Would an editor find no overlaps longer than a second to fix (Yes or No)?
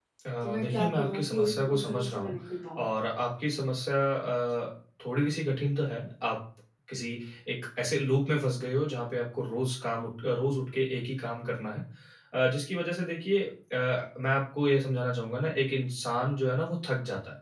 No